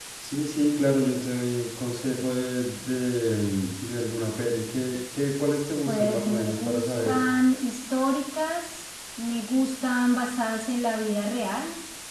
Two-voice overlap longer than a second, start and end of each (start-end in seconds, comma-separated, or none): 5.9-7.3